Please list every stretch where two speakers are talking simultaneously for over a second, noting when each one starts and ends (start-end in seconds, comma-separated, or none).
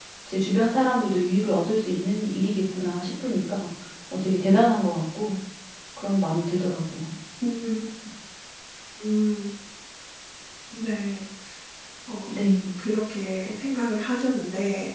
none